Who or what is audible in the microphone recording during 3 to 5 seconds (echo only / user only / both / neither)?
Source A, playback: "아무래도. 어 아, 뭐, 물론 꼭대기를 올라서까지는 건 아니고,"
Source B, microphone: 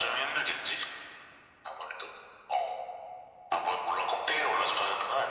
echo only